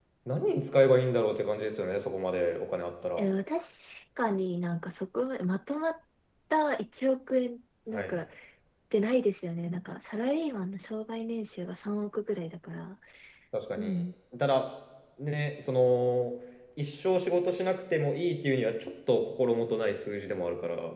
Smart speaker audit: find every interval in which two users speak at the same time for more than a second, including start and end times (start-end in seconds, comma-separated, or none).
none